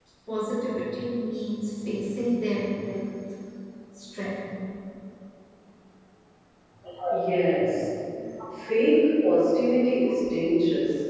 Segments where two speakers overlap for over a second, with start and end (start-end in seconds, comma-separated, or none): none